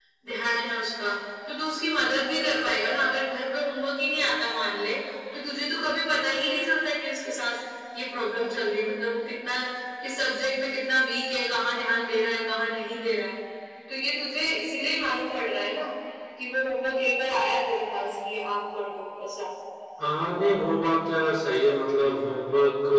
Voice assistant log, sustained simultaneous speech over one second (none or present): none